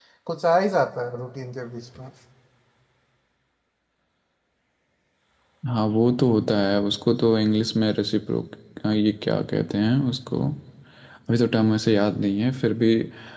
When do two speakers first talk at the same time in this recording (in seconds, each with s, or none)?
none